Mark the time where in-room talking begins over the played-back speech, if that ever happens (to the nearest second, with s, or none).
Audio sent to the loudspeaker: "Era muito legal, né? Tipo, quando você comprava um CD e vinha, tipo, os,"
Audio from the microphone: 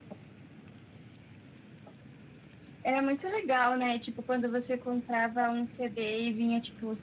none